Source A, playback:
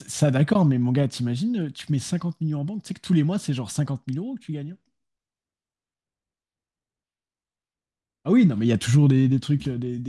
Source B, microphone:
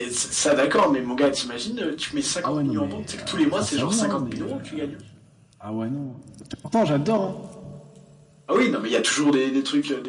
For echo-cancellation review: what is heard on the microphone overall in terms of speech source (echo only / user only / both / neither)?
both